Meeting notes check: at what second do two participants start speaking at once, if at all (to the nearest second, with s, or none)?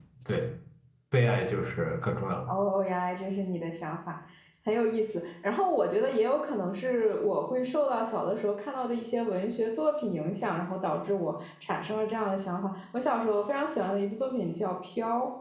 none